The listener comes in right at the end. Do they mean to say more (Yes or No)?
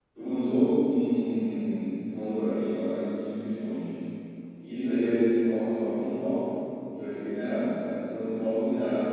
No